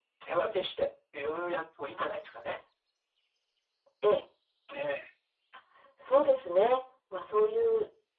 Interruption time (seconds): none

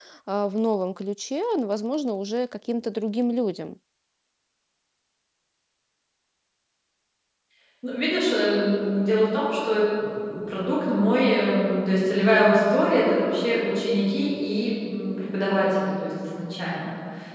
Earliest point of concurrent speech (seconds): none

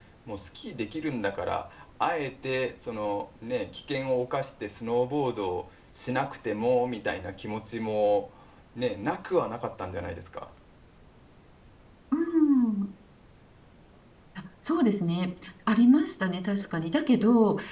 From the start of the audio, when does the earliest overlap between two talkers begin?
none

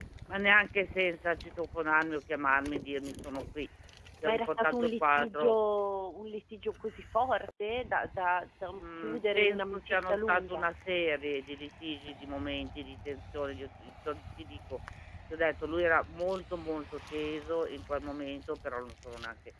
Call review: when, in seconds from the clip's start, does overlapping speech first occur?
4.2 s

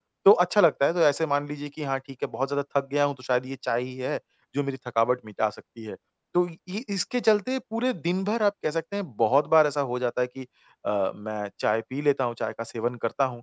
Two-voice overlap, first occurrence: none

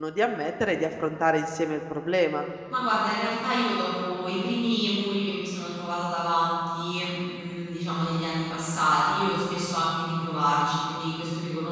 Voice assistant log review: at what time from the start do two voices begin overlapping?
none

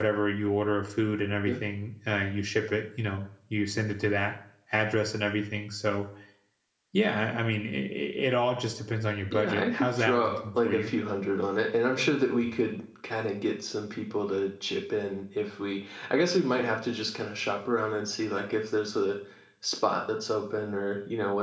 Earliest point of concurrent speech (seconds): 9.3 s

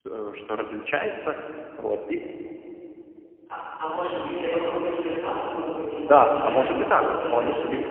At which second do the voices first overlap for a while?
6.0 s

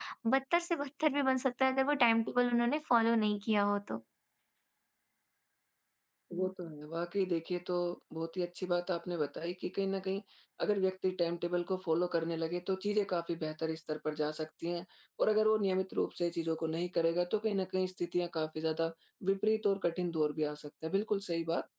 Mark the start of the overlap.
none

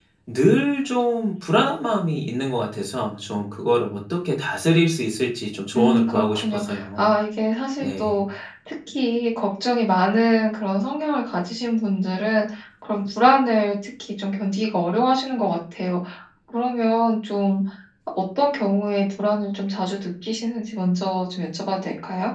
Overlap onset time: 5.8 s

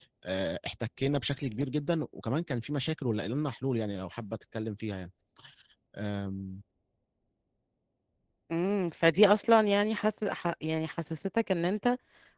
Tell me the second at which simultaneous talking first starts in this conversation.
none

